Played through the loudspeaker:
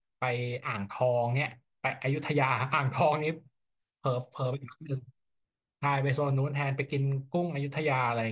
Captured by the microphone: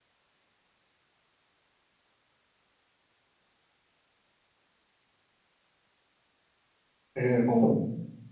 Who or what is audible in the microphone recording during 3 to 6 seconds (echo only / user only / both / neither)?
neither